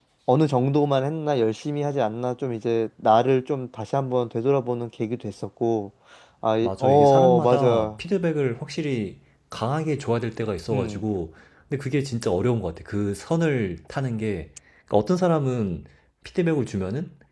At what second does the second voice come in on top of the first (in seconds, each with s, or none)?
6.6 s